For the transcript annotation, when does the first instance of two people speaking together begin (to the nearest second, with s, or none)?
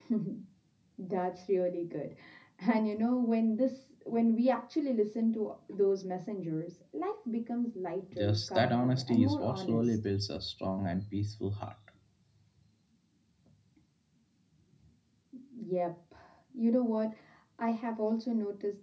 8 s